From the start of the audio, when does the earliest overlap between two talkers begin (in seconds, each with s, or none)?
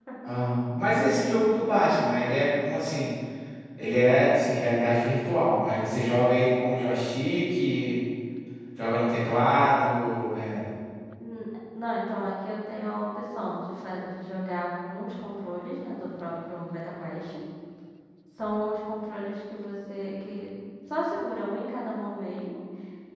none